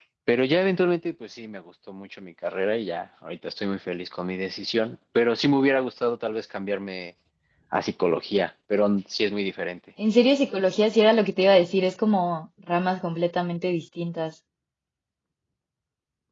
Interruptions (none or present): none